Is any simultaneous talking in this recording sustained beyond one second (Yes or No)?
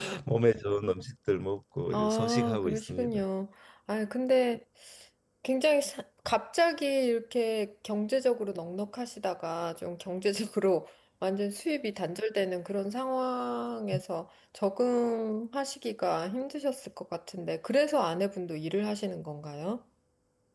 Yes